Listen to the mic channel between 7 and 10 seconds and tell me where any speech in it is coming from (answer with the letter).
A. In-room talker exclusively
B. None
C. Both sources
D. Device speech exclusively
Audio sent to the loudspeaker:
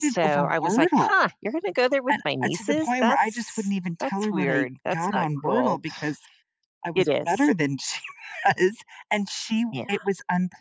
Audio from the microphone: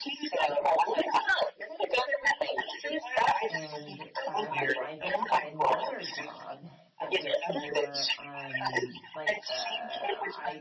C